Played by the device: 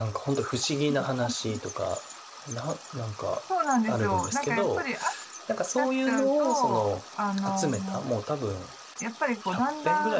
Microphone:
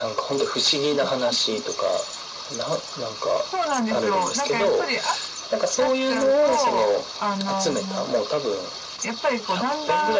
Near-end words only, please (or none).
none